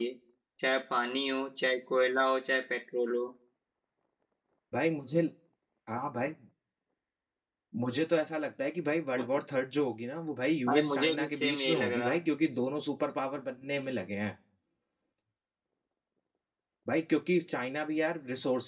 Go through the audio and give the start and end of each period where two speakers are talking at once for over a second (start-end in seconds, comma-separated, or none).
10.7-12.2